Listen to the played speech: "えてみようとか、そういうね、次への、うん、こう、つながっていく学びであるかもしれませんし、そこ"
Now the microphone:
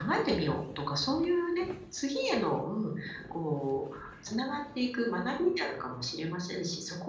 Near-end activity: none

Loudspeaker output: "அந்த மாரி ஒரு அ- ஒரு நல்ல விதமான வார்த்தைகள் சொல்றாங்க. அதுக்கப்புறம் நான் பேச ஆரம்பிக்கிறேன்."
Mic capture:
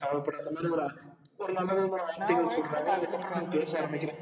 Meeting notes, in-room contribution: present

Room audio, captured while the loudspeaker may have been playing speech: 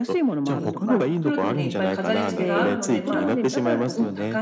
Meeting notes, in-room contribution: present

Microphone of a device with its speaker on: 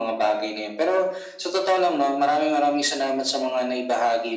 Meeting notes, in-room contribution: none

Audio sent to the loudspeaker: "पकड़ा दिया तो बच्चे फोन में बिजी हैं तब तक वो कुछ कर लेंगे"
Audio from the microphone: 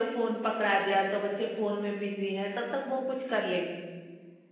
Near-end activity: none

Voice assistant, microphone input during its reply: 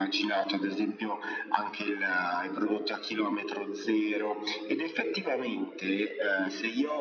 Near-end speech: none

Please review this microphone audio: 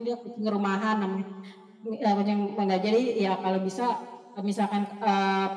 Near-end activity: none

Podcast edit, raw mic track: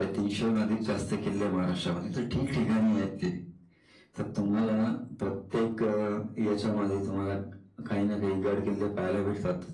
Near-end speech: none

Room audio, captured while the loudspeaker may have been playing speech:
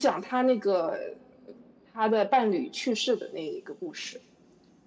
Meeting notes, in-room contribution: none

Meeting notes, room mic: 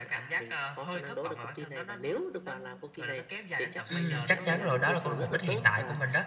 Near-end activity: present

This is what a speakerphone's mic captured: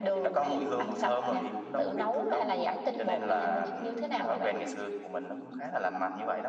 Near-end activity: none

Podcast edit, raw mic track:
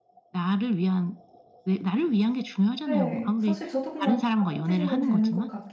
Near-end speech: present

